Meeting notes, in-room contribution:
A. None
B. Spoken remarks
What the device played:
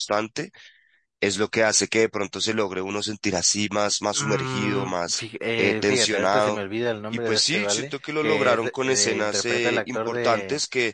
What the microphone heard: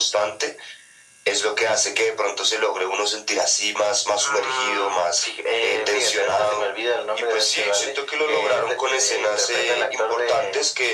A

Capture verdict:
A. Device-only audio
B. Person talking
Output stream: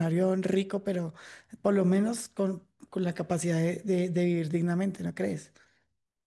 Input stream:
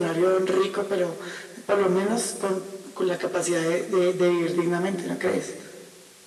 A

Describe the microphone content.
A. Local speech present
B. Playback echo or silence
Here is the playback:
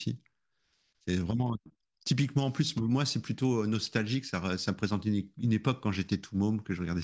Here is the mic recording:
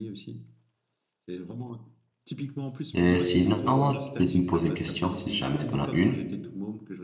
A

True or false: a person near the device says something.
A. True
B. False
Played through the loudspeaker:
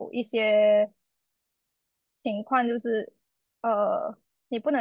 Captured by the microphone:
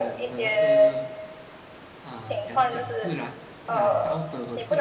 A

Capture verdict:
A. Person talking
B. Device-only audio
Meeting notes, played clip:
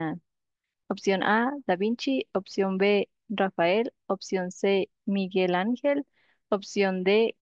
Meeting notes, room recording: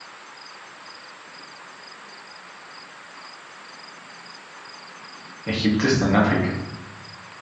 A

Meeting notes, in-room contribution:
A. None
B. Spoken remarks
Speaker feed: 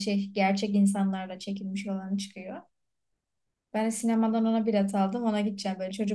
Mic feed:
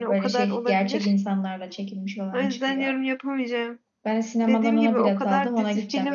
B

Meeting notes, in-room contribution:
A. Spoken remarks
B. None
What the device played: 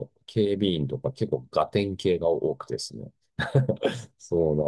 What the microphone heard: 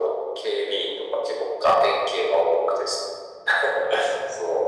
B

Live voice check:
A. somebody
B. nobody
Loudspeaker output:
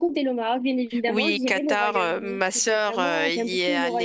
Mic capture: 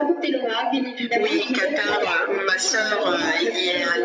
A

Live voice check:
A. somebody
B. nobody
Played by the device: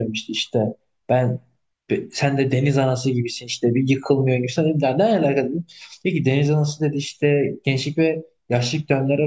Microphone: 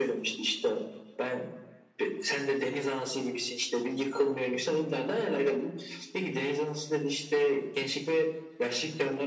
B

